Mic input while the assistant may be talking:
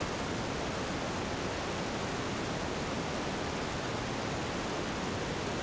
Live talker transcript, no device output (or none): none